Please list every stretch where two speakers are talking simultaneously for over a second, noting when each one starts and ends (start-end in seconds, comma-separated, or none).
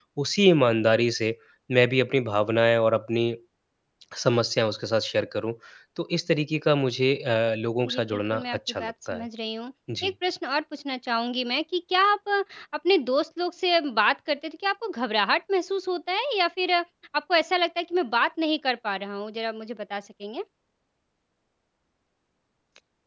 7.8-9.3